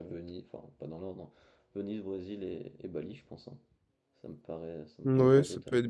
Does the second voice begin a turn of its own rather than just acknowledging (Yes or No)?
Yes